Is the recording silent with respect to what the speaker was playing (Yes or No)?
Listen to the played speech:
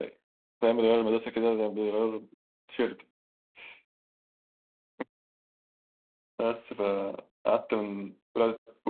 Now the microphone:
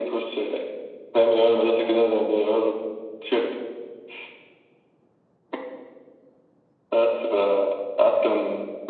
No